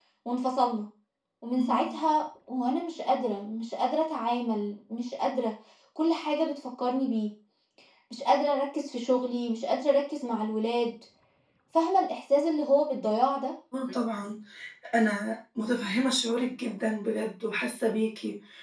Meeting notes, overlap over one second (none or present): none